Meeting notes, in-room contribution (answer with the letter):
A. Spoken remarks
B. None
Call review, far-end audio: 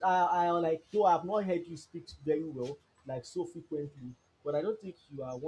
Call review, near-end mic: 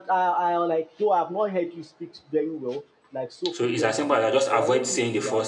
A